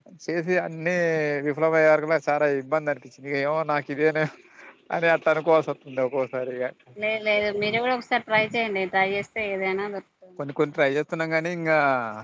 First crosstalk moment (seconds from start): none

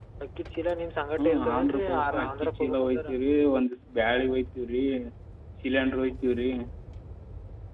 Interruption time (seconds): 1.2 s

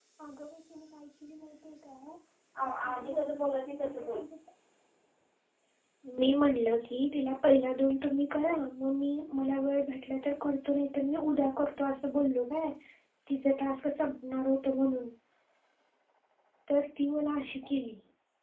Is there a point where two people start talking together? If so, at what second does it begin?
2.8 s

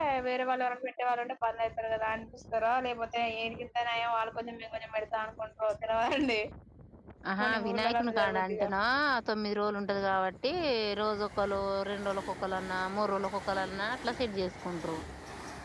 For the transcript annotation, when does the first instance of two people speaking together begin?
7.4 s

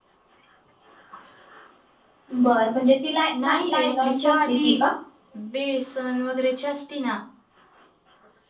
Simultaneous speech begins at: 3.3 s

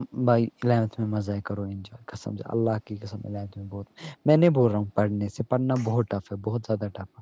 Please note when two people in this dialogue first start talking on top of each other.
none

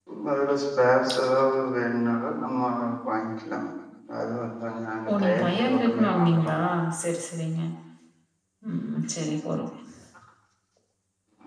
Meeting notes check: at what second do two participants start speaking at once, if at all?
5.1 s

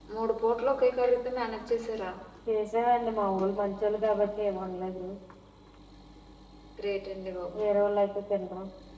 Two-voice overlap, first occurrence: none

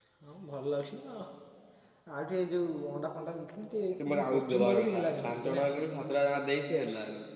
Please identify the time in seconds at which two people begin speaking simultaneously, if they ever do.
4.0 s

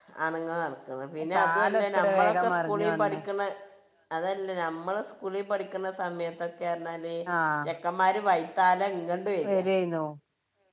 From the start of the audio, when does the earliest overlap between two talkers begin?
1.3 s

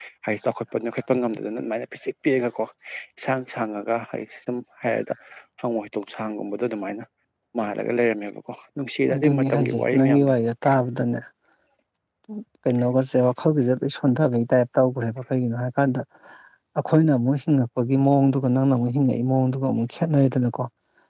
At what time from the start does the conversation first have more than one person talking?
9.1 s

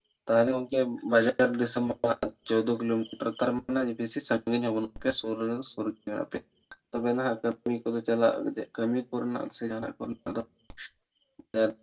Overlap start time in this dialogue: none

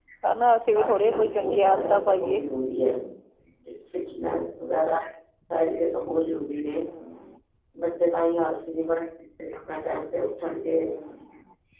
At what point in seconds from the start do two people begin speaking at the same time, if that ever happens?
0.8 s

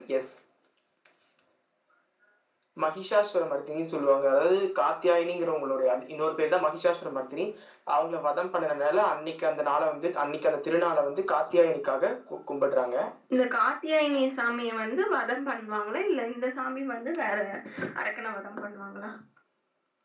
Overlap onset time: none

